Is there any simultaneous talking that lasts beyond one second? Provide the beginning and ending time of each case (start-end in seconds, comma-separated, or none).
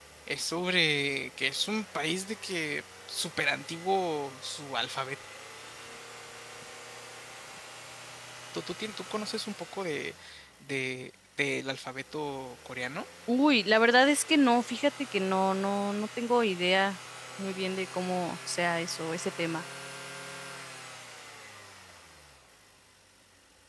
none